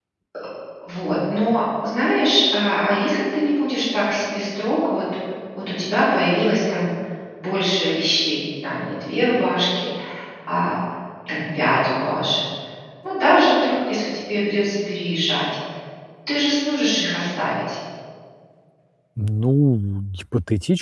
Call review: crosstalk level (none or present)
none